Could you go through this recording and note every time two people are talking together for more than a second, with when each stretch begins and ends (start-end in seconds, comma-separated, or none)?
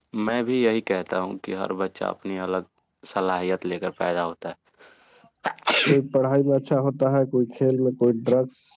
none